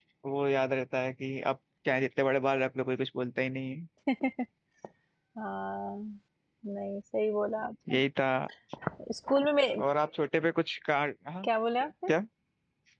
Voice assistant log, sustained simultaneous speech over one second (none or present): none